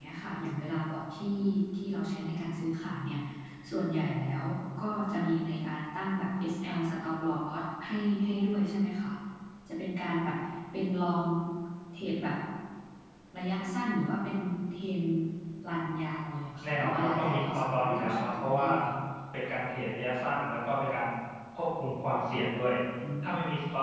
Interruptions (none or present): present